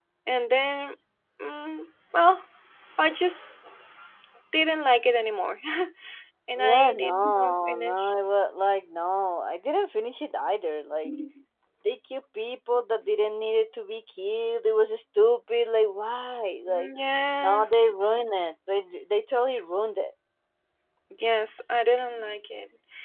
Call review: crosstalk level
present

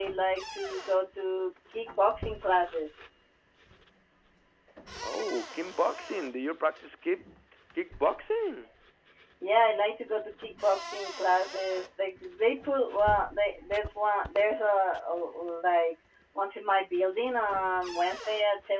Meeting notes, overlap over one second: none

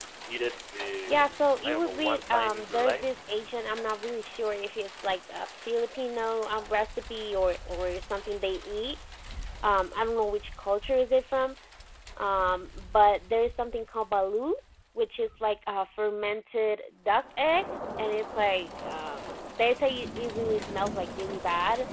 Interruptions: present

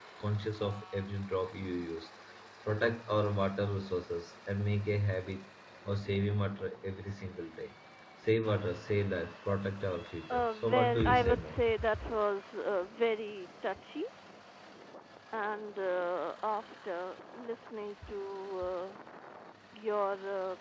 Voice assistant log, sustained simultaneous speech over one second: present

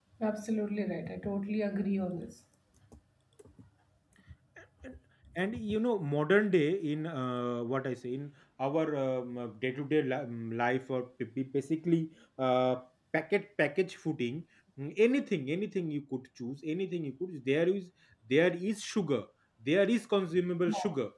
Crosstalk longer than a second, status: none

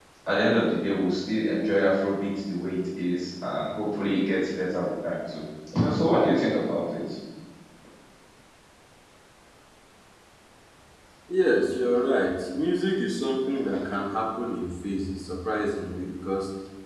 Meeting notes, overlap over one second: none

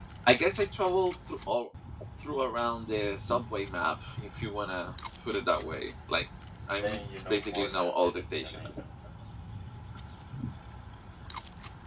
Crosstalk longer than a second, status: present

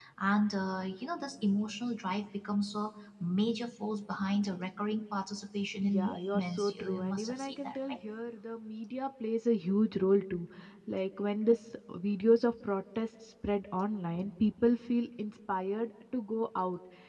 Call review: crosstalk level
present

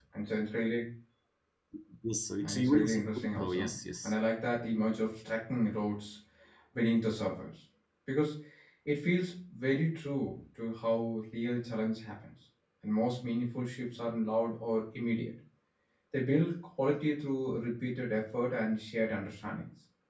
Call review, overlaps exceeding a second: present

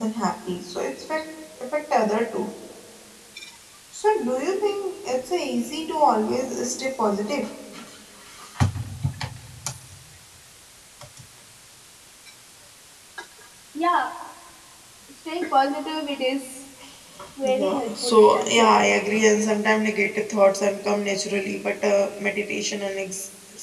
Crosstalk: present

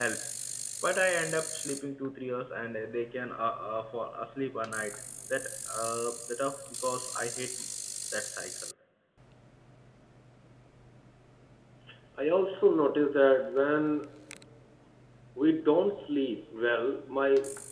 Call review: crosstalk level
none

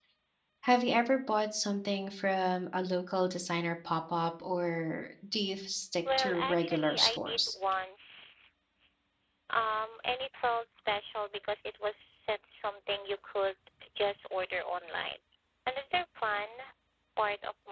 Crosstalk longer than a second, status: present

